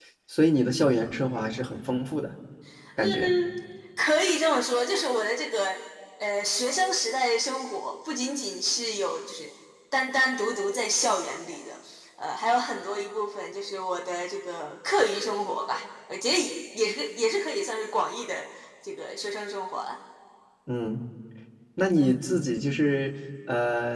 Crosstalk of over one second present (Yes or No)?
No